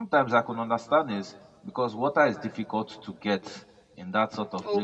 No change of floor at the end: Yes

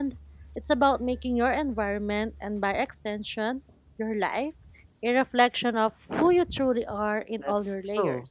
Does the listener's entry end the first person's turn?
Yes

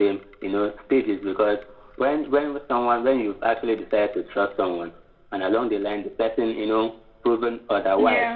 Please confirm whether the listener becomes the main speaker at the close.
No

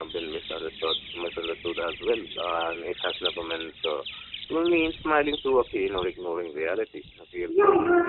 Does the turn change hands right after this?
Yes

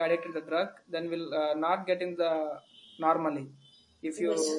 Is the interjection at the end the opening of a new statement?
No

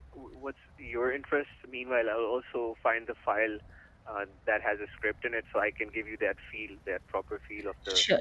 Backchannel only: No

